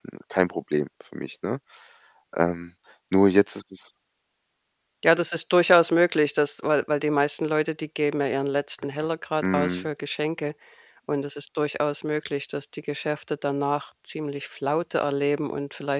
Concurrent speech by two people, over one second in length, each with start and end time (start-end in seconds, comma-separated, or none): none